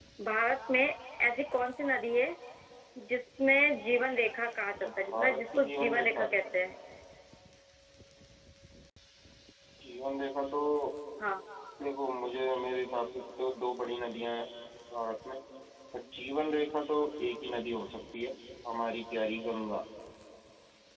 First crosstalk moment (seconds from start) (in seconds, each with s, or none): 5.0 s